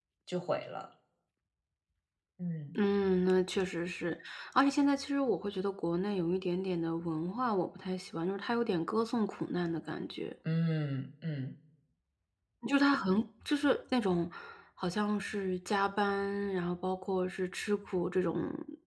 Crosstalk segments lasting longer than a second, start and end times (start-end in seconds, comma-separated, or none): none